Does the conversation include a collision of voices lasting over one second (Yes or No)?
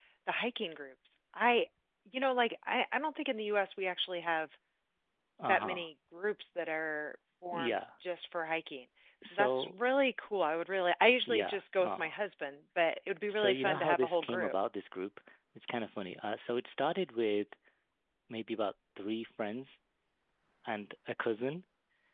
Yes